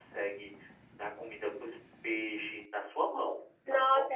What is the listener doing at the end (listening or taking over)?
taking over